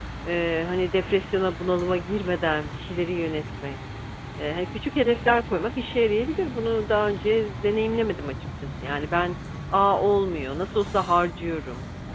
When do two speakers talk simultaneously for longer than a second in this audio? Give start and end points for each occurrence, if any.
none

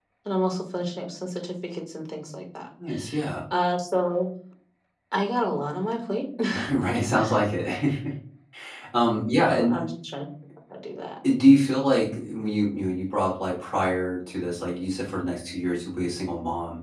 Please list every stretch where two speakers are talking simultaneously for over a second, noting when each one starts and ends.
none

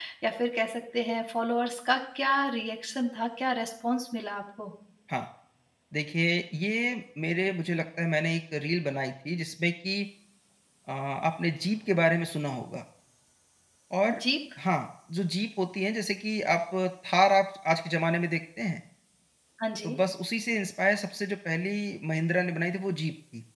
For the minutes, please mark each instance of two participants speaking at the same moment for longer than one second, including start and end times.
none

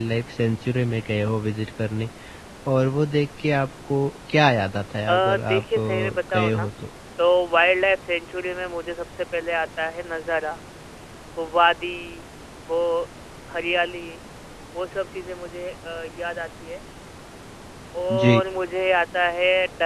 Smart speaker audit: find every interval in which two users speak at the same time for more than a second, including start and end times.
5.1-6.7

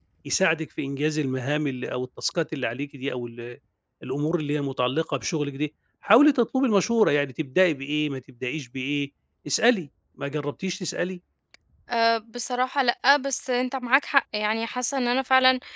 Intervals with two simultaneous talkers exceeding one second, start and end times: none

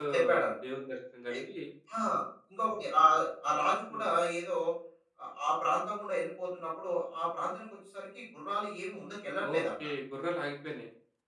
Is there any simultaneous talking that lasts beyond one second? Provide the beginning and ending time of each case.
none

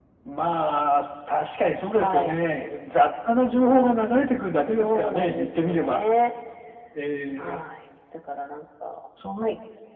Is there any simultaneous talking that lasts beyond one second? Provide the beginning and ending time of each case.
4.7-6.0

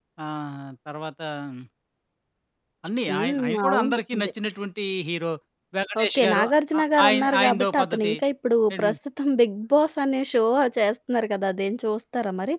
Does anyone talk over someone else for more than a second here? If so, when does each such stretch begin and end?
3.1-4.3, 6.8-8.1

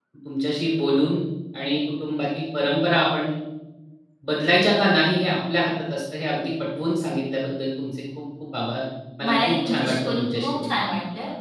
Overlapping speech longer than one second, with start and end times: 9.2-10.8

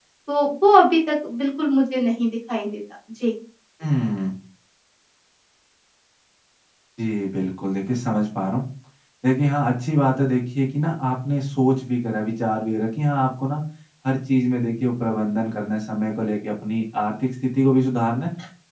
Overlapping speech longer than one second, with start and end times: none

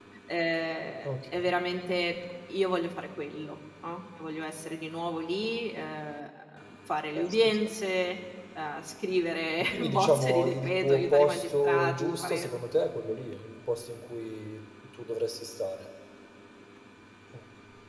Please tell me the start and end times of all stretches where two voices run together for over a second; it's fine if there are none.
9.7-12.5

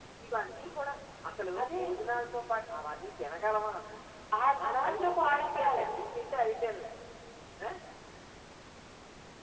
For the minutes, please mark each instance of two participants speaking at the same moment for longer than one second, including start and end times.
4.6-6.1

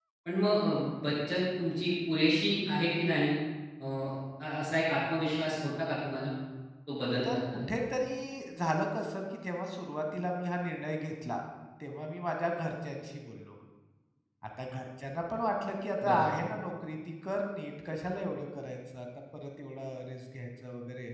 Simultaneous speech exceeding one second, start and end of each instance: none

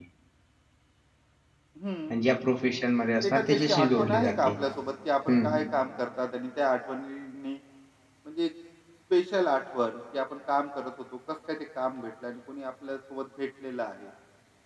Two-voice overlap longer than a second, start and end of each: 3.2-4.5

